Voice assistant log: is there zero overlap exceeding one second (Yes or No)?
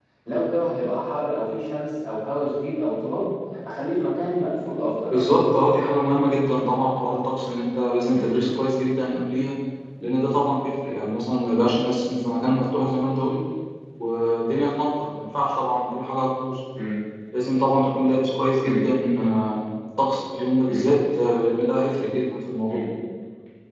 Yes